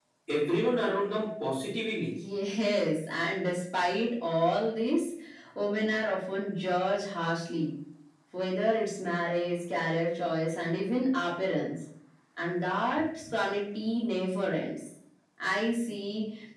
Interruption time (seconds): none

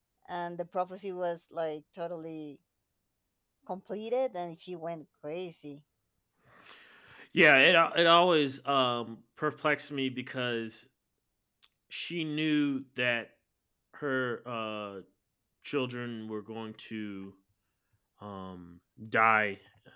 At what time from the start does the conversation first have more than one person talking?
none

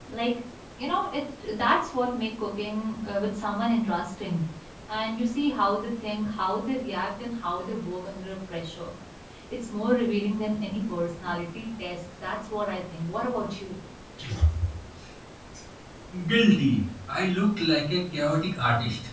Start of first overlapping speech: none

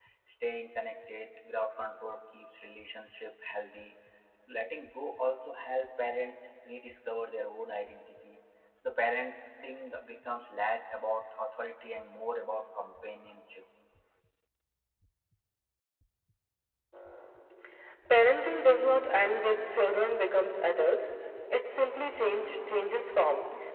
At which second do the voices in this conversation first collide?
none

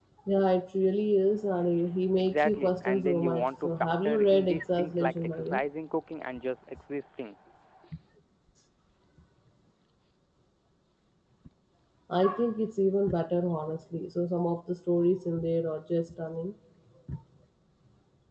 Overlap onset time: 2 s

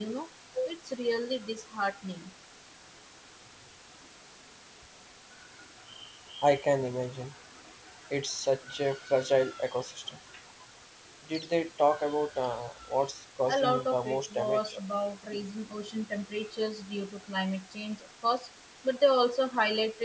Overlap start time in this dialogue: 13 s

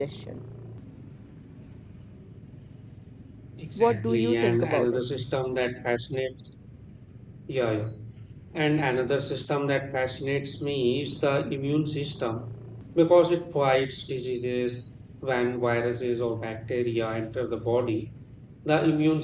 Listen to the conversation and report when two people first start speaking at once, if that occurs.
4 s

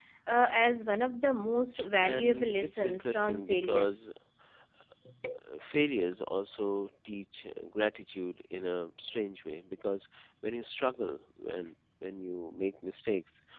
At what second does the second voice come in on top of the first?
2 s

